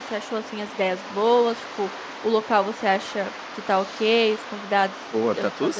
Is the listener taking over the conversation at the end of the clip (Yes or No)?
Yes